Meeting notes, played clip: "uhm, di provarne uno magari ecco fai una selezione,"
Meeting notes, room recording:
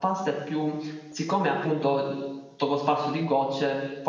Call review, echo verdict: none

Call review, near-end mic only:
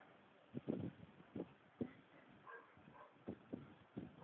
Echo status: none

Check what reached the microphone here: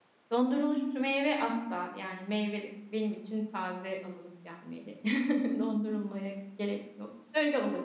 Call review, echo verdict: none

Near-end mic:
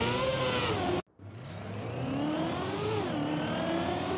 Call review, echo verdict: none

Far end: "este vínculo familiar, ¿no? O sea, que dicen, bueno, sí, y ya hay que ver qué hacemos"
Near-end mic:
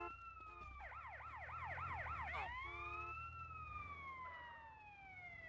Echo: none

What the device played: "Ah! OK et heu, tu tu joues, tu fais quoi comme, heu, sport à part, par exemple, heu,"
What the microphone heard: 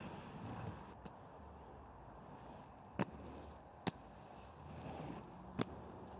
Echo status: none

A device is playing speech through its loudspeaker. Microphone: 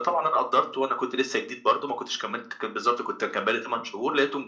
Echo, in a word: present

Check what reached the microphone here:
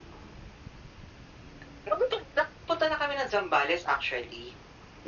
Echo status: present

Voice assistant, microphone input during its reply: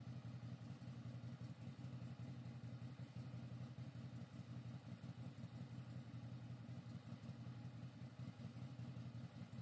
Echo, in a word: none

